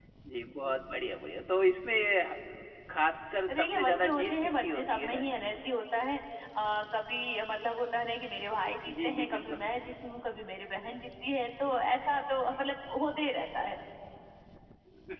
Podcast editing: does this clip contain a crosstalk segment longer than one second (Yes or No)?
Yes